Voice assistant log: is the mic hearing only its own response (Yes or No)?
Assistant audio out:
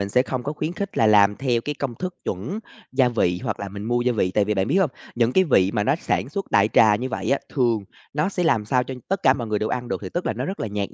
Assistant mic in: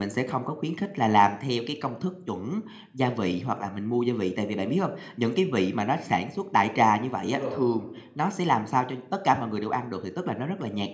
No